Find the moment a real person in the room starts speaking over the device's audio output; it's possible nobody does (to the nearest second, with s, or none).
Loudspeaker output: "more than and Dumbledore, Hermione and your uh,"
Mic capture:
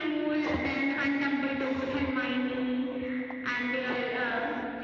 none